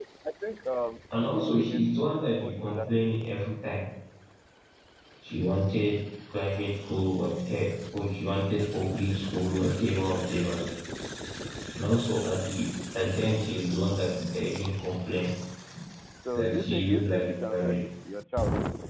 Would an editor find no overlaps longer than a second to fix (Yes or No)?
No